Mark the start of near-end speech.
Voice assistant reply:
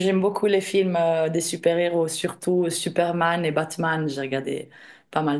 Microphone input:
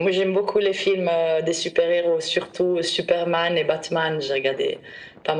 none

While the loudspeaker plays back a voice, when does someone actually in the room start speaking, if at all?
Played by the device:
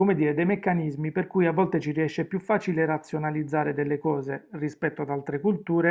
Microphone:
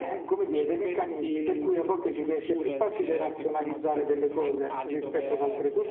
0.5 s

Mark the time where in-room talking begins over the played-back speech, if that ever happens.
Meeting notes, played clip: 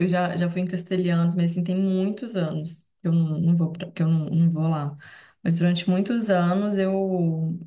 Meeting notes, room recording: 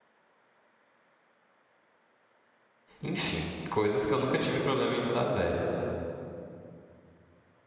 3.0 s

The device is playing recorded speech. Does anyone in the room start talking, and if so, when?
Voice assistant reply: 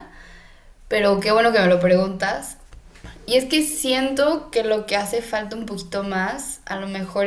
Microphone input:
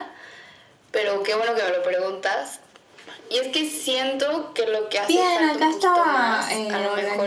5.0 s

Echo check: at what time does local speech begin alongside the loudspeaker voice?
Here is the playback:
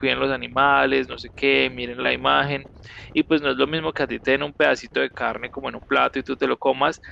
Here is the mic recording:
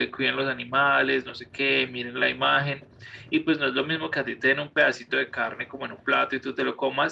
none

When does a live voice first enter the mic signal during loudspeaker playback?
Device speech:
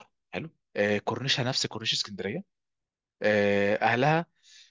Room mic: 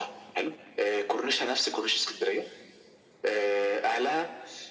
none

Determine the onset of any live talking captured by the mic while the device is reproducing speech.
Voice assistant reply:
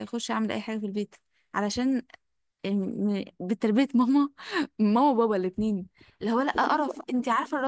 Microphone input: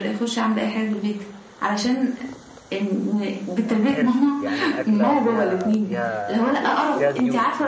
3.6 s

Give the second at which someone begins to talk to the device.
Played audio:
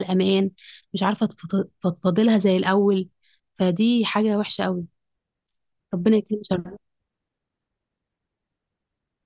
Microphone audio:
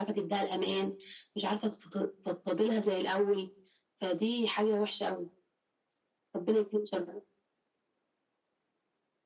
none

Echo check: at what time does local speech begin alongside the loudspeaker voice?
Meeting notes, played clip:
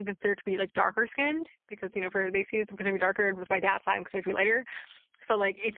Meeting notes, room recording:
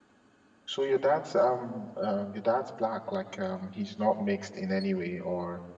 0.7 s

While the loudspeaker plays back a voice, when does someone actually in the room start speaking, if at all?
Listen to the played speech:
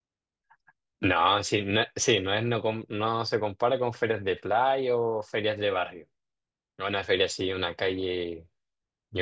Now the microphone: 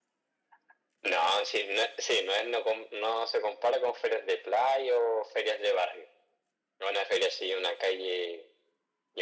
none

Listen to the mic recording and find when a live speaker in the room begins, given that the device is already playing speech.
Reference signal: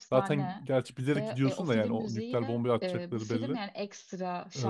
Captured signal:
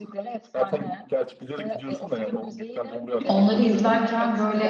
3.3 s

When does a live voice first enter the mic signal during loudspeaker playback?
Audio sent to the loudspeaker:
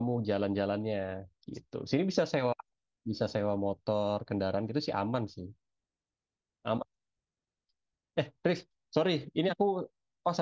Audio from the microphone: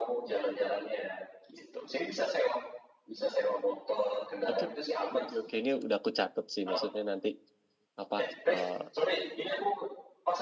4.4 s

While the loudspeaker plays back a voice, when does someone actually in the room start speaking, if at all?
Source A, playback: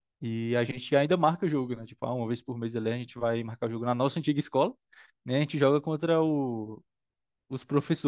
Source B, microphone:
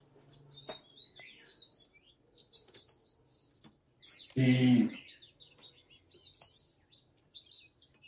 4.3 s

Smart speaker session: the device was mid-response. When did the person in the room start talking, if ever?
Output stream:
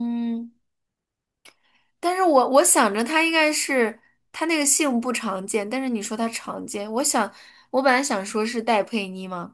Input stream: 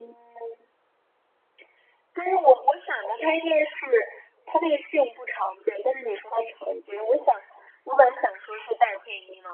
none

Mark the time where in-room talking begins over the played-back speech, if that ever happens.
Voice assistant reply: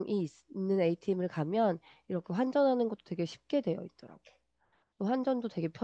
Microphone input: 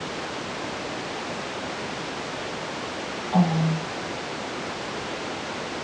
3.3 s

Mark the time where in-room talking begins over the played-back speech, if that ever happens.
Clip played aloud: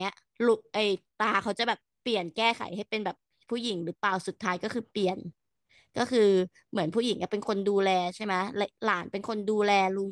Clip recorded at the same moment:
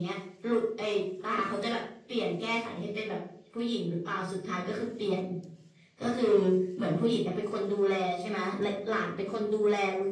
none

